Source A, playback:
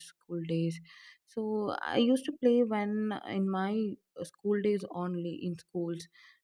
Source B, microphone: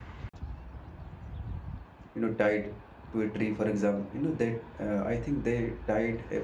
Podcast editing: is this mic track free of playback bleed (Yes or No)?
Yes